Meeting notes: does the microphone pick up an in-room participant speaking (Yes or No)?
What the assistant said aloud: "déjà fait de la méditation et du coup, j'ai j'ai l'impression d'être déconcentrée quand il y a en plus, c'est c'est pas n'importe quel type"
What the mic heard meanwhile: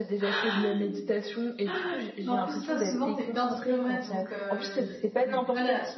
Yes